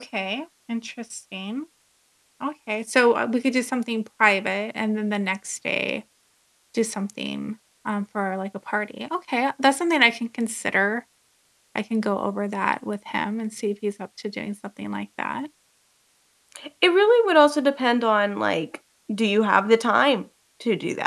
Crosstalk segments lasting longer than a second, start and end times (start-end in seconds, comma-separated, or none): none